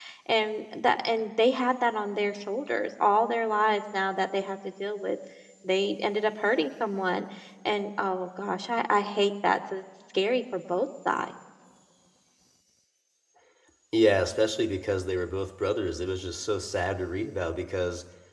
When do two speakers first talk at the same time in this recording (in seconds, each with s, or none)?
none